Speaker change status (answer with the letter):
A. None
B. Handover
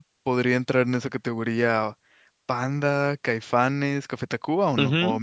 B